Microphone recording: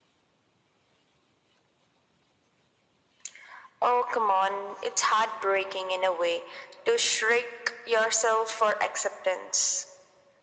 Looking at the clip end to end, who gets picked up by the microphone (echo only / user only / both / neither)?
echo only